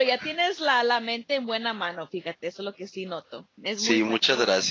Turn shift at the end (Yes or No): Yes